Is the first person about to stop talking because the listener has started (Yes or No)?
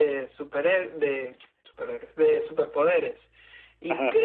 No